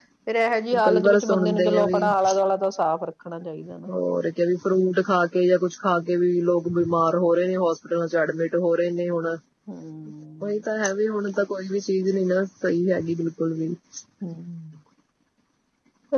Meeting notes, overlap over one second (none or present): present